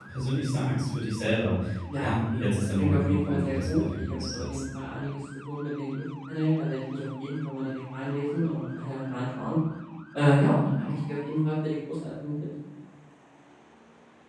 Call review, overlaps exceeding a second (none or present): present